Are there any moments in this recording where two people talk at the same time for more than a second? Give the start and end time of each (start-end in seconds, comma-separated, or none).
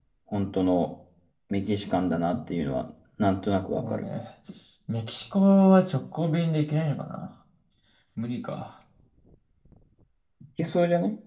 none